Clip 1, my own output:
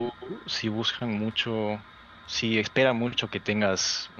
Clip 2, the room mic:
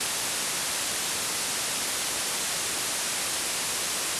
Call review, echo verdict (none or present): none